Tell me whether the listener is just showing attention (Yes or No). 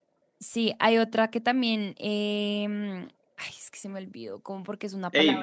No